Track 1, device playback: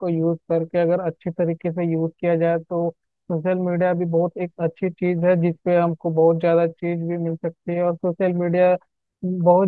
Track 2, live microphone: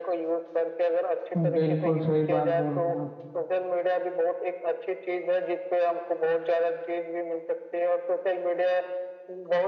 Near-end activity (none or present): present